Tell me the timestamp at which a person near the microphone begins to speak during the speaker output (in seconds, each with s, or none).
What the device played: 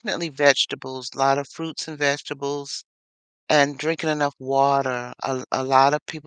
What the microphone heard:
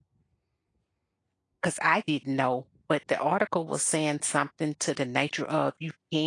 1.6 s